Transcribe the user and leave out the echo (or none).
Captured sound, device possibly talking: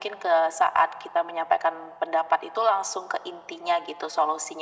none